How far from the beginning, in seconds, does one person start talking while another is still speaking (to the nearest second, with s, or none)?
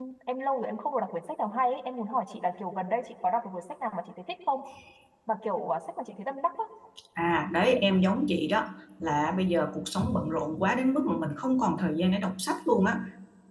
none